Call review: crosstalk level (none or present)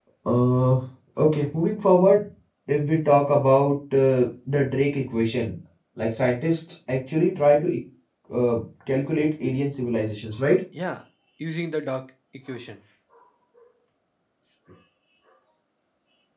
none